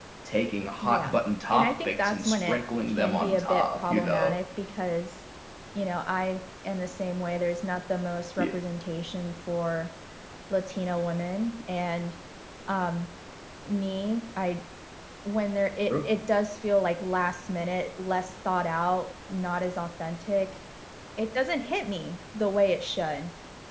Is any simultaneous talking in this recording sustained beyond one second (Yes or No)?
Yes